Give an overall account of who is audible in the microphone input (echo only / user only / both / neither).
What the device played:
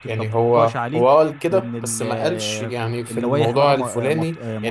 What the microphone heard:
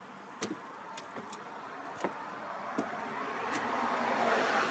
neither